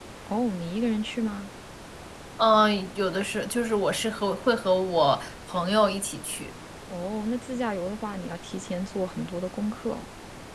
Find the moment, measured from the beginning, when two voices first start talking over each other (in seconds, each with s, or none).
none